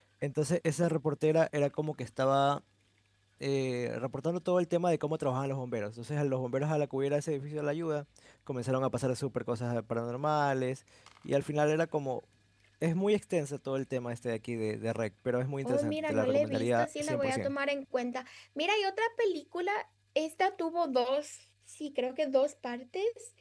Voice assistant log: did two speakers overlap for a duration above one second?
Yes, from 15.6 s

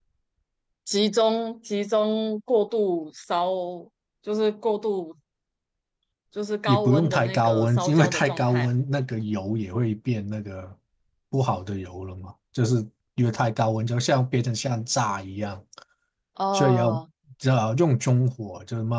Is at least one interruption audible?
Yes, from 6.7 s

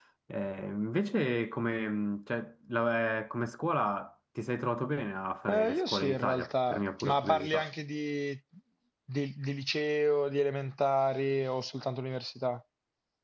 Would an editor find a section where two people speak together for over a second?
Yes, from 5.5 s

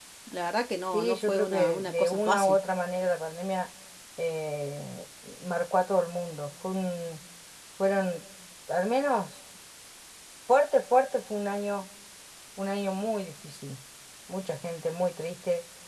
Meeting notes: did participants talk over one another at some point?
Yes, from 0.9 s

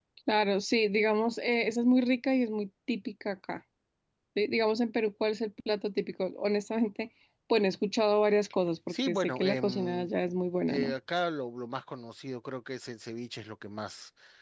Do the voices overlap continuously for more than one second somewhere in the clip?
Yes, from 8.9 s

